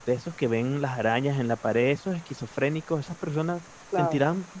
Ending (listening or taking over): listening